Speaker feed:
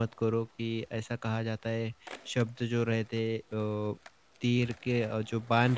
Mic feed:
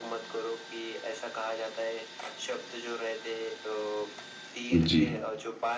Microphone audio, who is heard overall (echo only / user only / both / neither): both